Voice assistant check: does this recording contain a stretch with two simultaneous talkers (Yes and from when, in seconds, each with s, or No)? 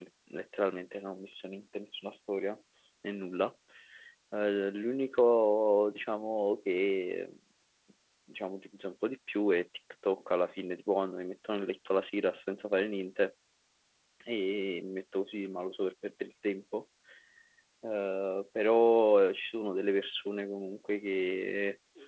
No